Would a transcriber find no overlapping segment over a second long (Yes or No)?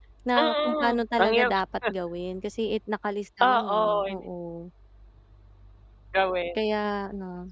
No